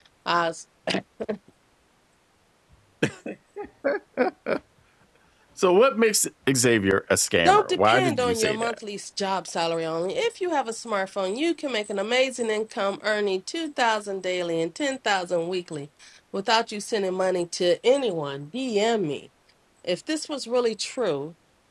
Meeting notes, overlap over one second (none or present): present